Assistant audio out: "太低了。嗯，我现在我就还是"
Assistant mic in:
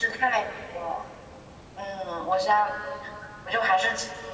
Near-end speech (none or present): none